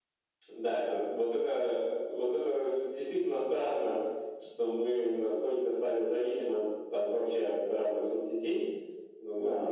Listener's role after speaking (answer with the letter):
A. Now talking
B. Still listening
A